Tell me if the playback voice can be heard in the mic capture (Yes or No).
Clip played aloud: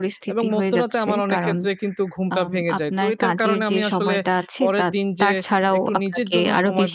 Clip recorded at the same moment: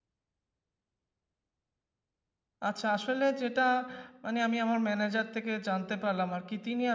No